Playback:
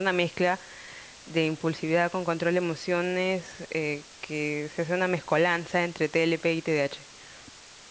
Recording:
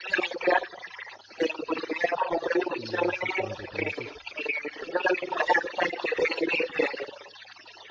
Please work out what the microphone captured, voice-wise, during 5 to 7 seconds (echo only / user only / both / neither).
echo only